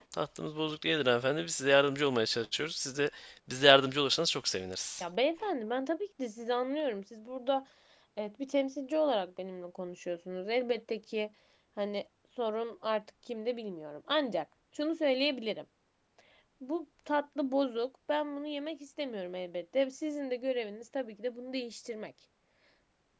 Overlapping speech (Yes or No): No